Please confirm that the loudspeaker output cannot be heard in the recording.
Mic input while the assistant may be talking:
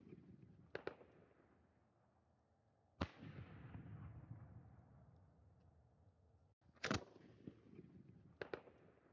Yes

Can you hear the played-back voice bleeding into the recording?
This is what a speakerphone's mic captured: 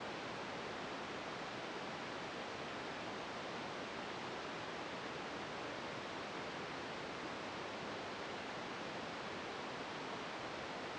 No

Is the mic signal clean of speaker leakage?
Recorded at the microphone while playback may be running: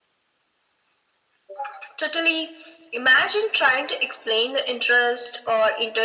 No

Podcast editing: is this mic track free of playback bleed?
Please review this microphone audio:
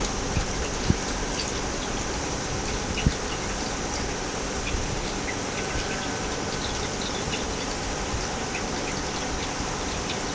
Yes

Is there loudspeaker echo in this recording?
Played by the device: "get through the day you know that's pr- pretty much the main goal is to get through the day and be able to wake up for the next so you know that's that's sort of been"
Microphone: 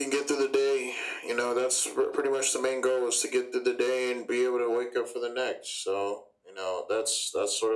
Yes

